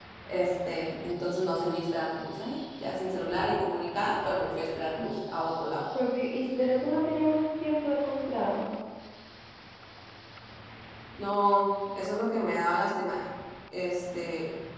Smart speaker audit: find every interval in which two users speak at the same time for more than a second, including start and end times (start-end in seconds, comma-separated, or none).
none